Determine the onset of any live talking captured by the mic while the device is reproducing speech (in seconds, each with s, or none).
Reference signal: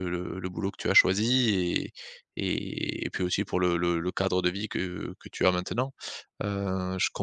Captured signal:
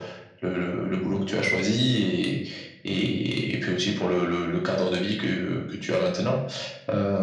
none